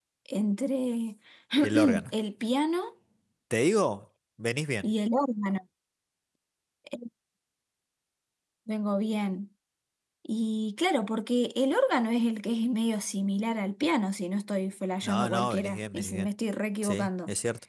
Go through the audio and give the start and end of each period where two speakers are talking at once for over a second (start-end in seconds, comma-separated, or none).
15.1-16.3